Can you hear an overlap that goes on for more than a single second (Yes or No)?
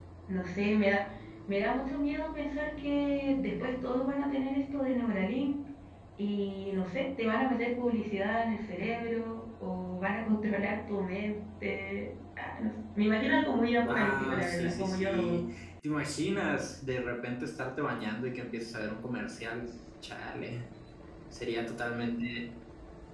Yes